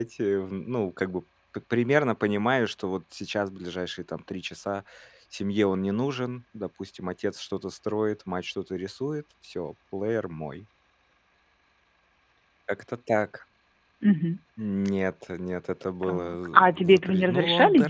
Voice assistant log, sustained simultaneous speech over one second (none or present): present